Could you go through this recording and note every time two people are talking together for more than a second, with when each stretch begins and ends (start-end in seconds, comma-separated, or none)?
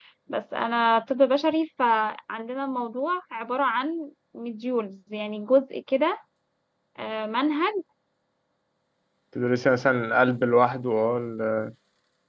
none